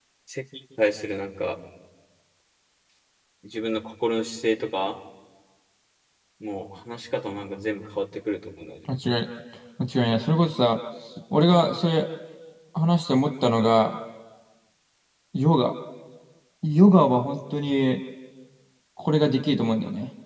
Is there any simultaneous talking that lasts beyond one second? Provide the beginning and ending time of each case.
none

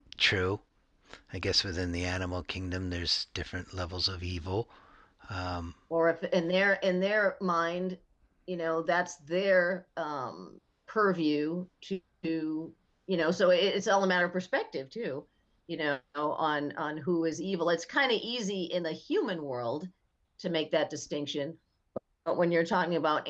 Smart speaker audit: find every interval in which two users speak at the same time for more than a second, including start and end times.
none

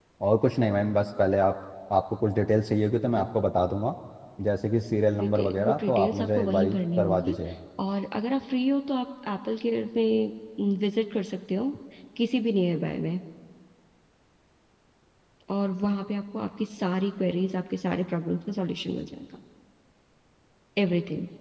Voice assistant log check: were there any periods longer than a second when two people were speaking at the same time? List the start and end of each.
5.2-7.4

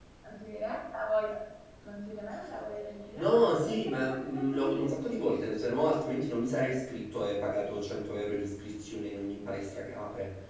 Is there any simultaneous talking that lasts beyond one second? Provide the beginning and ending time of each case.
3.1-5.2

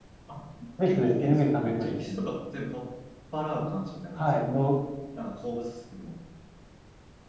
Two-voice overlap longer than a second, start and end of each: 0.8-2.0

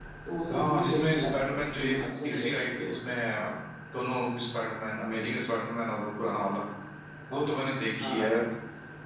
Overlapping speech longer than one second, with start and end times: 0.5-3.1

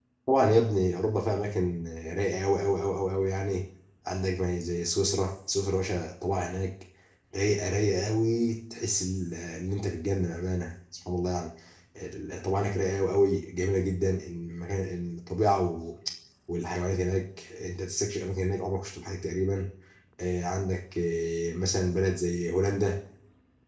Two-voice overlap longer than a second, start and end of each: none

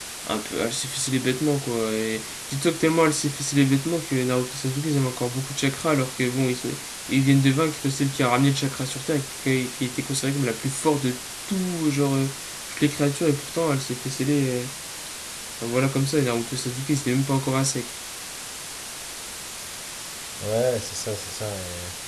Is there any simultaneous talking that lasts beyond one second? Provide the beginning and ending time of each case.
none

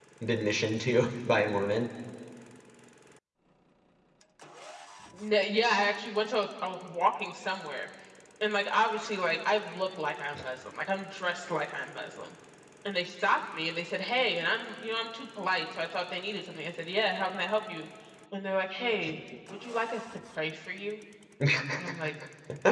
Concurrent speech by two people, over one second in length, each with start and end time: none

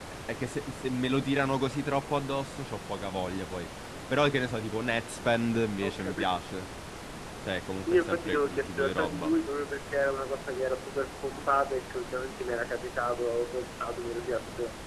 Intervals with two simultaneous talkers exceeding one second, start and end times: 7.9-9.3

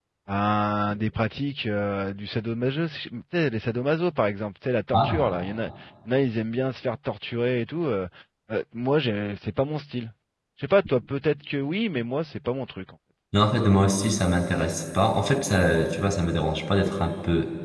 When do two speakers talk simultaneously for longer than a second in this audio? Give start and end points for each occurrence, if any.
none

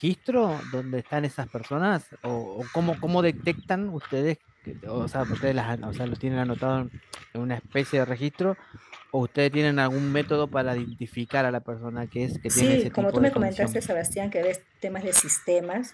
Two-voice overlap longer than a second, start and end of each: 12.5-13.8

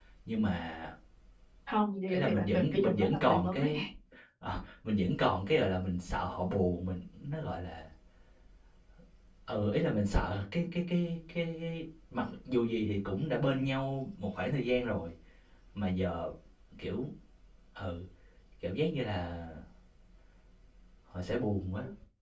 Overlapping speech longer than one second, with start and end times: 2.1-3.5

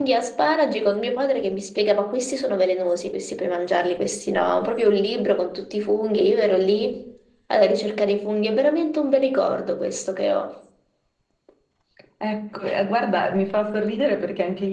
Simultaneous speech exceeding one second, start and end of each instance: none

